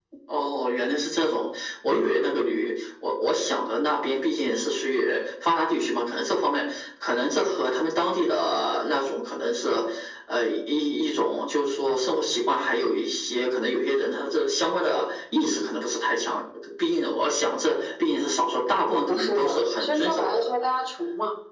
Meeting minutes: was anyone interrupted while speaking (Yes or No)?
Yes